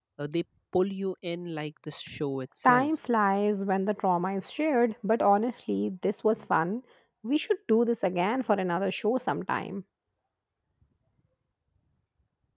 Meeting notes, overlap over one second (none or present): none